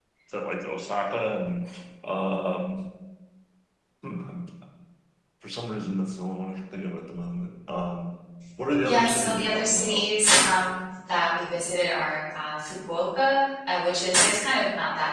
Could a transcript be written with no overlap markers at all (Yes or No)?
No